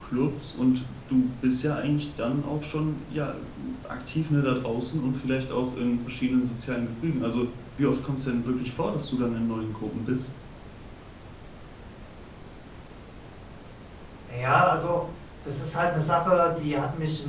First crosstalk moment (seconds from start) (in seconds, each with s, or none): none